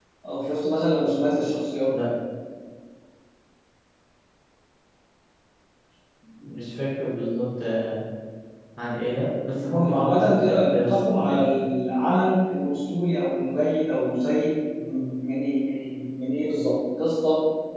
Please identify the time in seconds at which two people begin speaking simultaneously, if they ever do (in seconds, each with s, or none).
9.6 s